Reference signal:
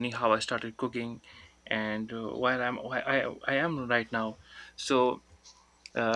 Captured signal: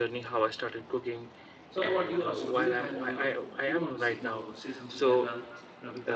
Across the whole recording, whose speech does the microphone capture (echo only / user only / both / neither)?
both